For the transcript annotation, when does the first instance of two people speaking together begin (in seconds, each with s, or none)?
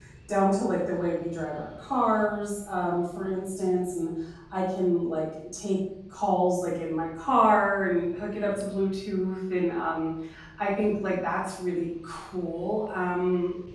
none